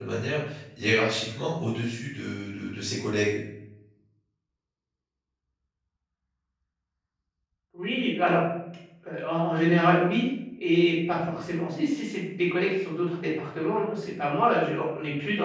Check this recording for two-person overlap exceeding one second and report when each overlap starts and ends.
none

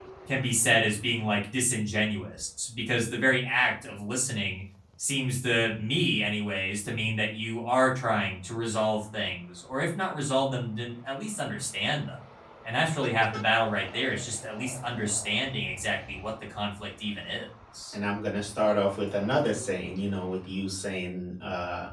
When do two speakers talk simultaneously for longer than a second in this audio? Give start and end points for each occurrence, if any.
none

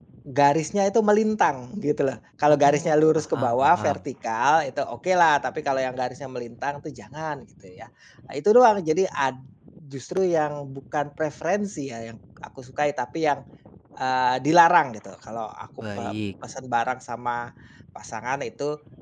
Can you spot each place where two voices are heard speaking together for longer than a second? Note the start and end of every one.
2.5-4.0

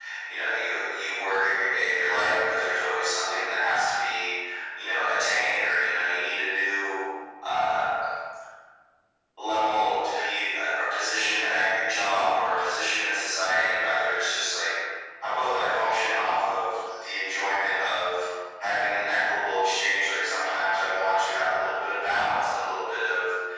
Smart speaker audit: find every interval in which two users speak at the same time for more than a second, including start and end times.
none

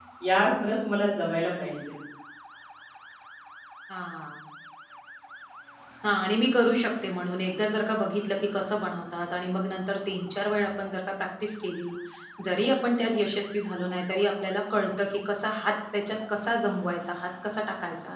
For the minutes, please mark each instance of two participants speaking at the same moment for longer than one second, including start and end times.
none

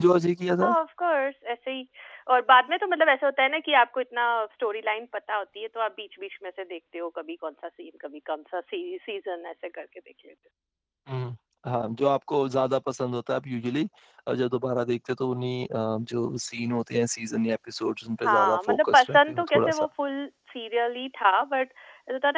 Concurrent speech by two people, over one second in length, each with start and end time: 18.2-19.9

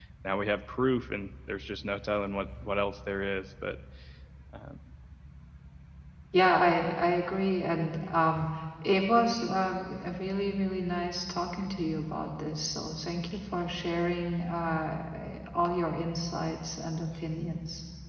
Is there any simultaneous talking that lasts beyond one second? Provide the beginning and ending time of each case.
none

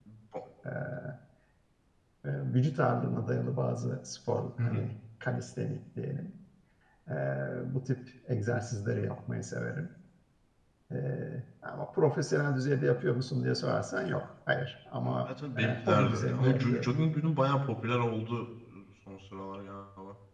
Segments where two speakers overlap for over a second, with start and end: 15.0-17.0

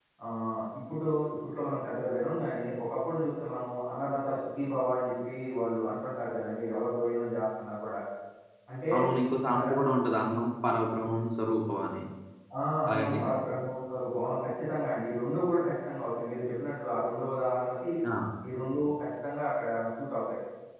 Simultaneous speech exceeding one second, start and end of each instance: none

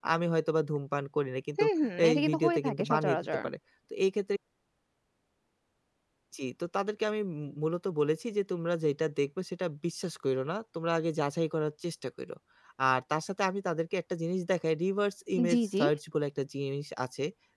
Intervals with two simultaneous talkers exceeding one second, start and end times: 2.1-3.3

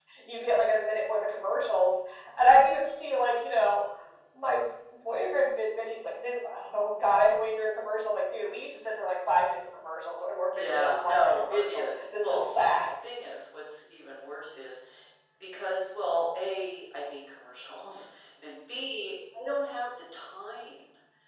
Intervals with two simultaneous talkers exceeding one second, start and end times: 10.5-12.8

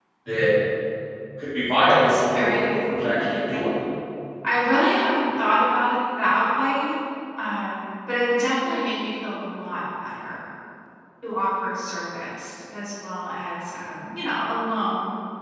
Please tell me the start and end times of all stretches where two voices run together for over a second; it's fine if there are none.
2.0-3.7

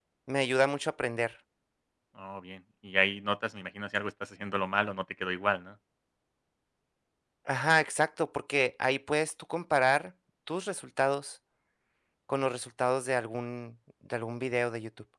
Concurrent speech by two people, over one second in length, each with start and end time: none

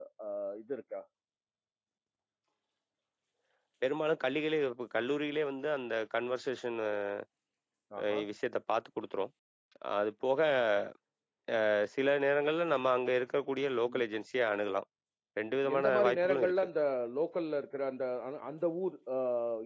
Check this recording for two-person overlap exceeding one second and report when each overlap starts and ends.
15.4-16.7

